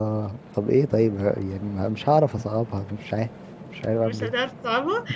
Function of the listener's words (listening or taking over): taking over